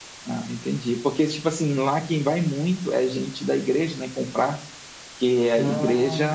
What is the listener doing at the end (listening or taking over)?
listening